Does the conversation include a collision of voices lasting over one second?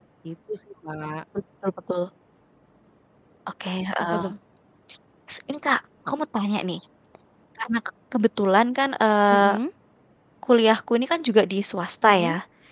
No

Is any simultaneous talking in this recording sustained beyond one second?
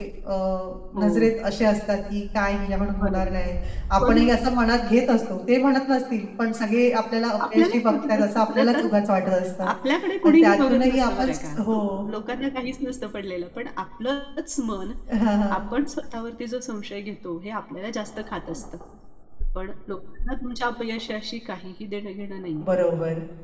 Yes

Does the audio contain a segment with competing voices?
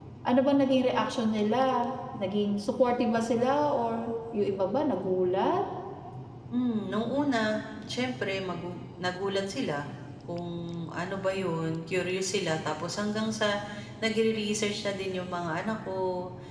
No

